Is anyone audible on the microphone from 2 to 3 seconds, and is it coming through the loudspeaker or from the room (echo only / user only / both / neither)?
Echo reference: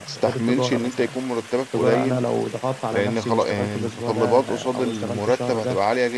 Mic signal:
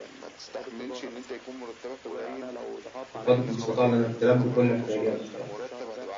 echo only